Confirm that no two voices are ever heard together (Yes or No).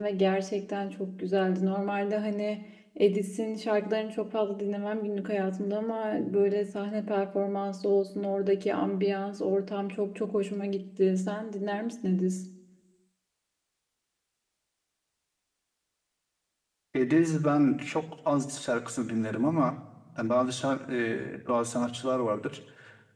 Yes